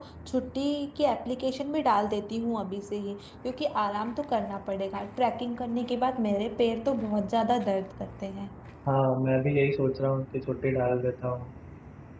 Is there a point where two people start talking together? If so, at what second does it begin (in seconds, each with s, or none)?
none